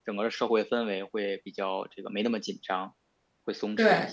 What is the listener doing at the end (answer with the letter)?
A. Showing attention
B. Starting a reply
B